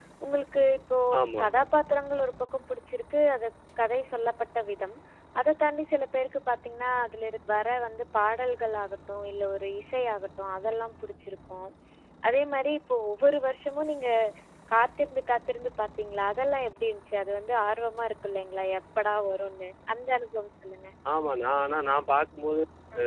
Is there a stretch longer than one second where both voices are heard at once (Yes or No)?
No